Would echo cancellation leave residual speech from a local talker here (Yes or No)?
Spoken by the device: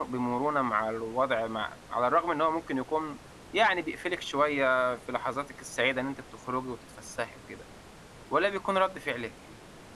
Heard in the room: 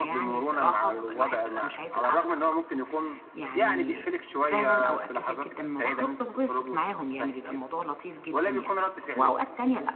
Yes